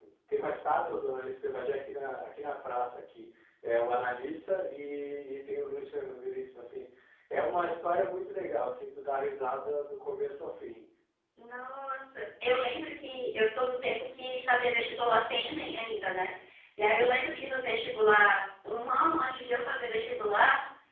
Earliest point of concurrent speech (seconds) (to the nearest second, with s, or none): none